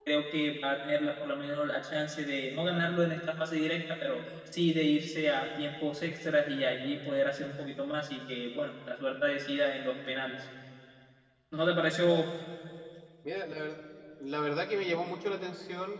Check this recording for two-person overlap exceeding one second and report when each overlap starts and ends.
none

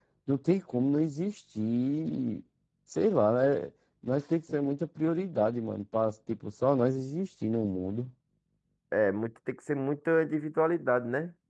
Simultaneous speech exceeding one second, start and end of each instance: none

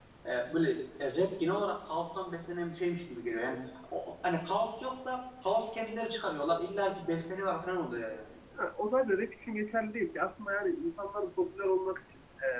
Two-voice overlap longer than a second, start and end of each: none

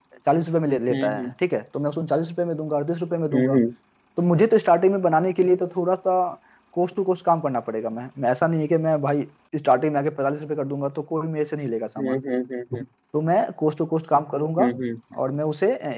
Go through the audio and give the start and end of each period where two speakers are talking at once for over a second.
none

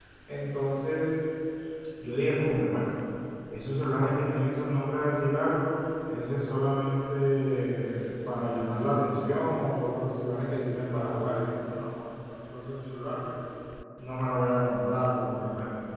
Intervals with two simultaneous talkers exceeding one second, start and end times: none

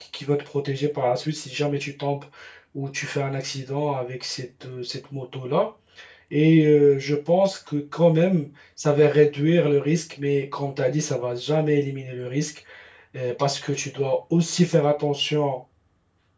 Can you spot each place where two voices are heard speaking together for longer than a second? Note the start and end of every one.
none

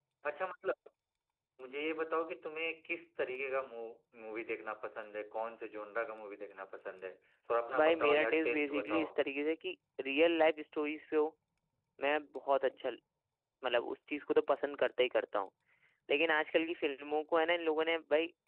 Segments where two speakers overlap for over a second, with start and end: 7.8-9.1

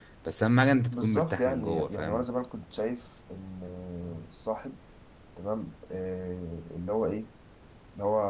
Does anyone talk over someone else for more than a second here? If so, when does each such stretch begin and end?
0.9-2.2

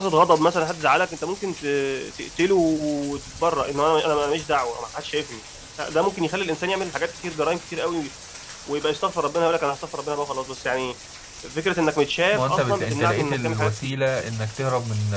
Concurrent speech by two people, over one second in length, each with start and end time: 12.3-13.9

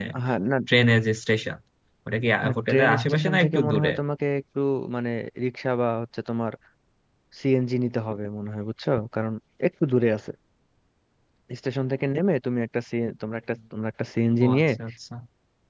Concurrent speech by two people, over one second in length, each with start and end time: 2.4-3.9

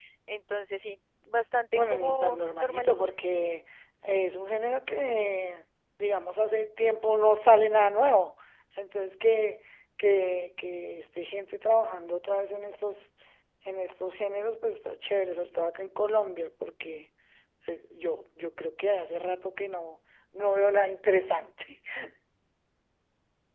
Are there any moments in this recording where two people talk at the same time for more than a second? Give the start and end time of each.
1.7-2.9

